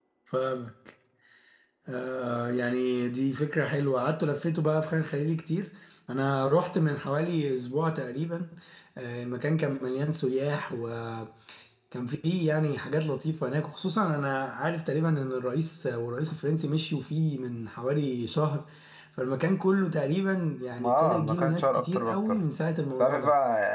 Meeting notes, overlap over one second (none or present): present